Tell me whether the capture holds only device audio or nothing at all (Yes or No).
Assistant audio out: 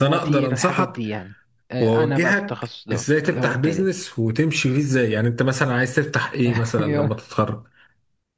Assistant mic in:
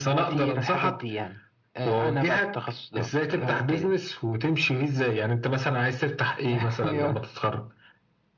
Yes